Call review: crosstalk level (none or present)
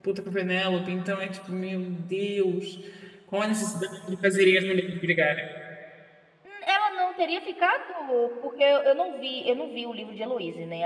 none